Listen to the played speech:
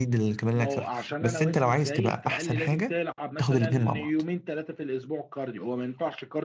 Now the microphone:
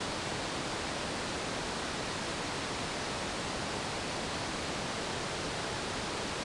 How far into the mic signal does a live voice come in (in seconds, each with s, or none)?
none